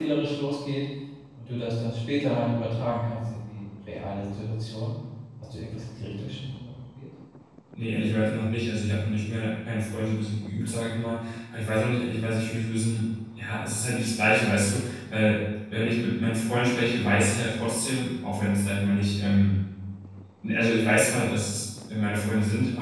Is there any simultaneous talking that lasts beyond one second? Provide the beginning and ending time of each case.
none

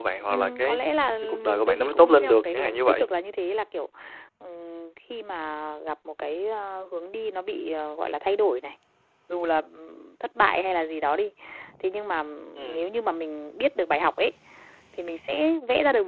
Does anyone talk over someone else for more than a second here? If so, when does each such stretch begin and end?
1.2-3.1

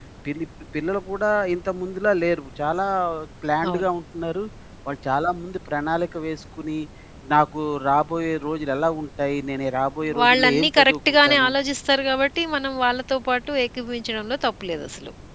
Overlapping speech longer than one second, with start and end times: 10.2-11.5

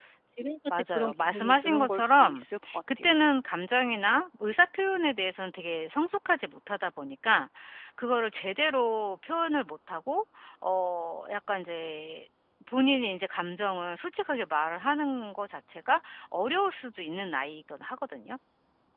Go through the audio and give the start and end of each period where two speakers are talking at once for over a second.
0.9-2.4

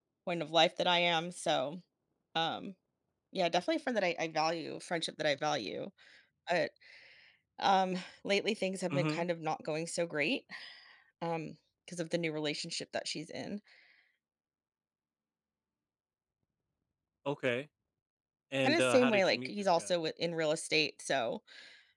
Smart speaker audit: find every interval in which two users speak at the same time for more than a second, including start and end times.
18.6-19.9

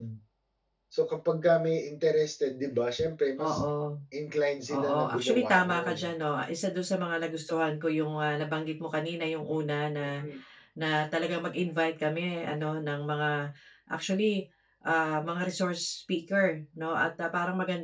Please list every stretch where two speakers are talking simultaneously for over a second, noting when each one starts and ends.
4.7-5.9

